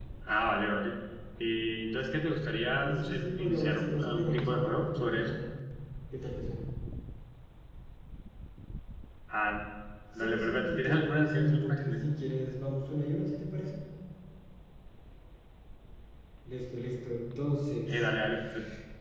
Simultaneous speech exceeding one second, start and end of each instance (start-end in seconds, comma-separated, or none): 2.8-5.4, 10.2-12.0